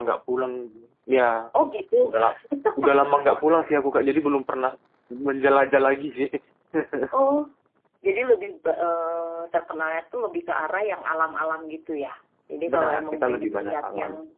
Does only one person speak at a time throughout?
No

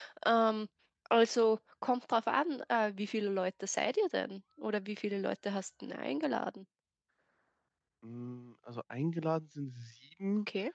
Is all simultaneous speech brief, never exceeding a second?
Yes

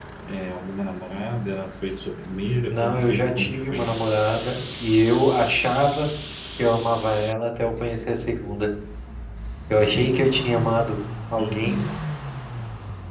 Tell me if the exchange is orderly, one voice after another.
No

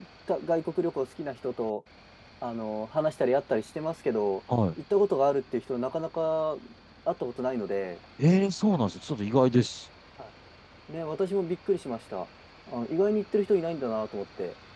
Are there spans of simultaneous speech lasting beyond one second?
No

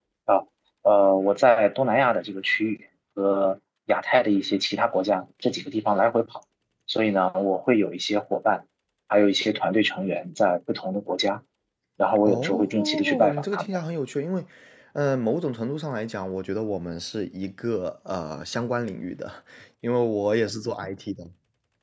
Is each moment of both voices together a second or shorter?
No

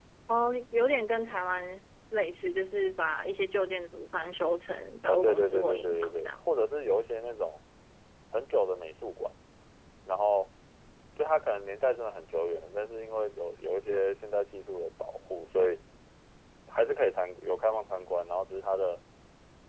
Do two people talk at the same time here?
Yes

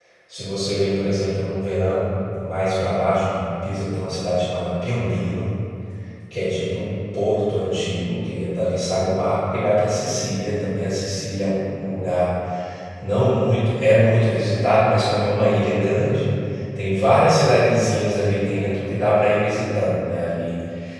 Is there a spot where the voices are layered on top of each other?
No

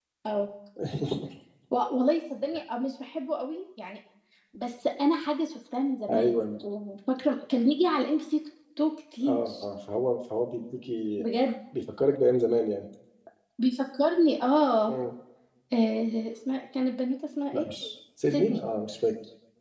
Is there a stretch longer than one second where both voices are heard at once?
No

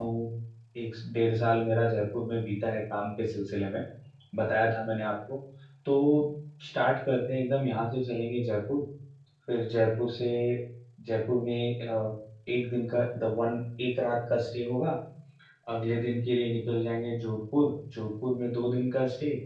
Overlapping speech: No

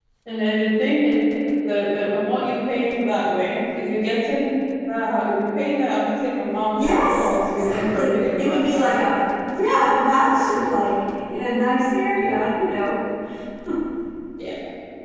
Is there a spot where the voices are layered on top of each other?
Yes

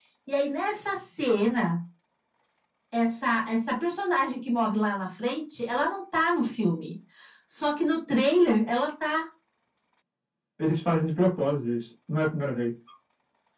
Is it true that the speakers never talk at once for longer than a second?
Yes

